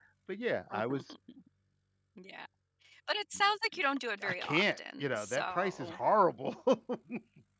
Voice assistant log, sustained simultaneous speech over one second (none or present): present